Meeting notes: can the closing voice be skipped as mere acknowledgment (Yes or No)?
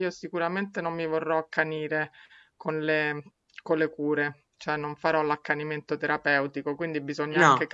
Yes